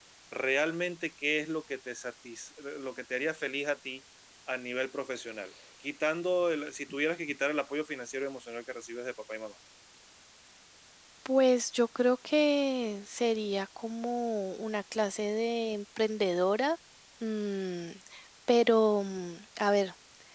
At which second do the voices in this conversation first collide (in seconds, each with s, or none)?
none